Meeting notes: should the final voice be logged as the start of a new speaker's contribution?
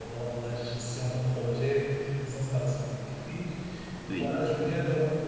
No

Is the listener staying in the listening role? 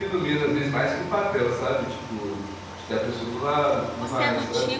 No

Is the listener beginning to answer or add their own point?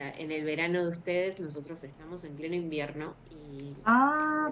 Yes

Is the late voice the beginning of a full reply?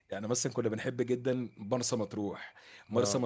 No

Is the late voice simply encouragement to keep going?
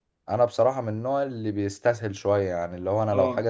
Yes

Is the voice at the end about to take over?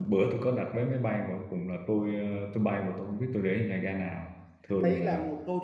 Yes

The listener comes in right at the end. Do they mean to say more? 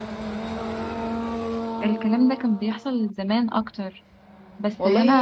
Yes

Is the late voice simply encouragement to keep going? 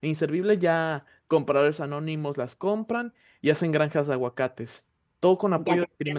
No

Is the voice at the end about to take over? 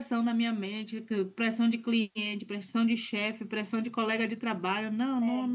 No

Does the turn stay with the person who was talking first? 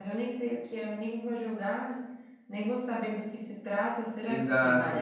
No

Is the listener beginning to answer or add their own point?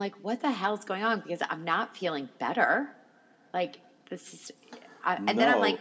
No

